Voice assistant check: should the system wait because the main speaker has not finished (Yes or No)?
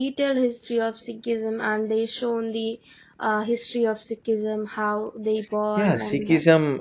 No